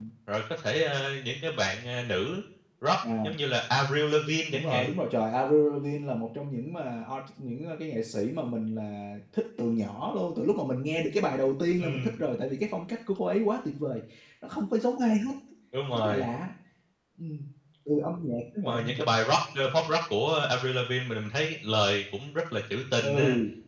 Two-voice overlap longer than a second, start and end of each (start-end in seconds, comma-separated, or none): none